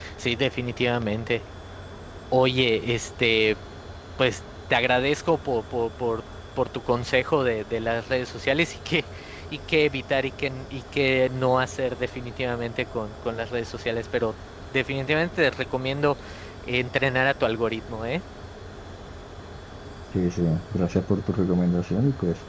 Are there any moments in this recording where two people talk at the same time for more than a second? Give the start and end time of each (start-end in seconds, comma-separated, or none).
none